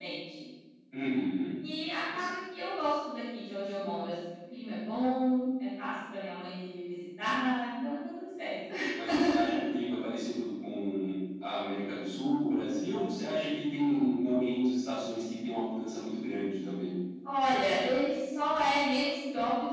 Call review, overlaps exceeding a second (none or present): none